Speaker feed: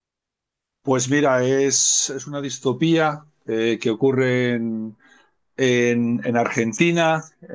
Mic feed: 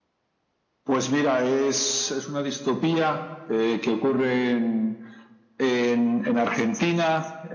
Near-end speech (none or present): none